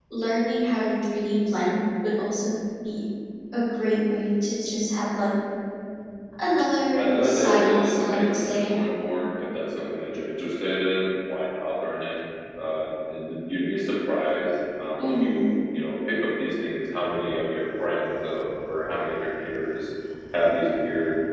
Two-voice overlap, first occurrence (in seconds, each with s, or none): 7.0 s